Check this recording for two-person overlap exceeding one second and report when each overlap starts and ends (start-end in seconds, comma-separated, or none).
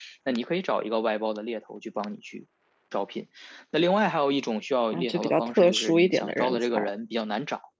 4.9-6.9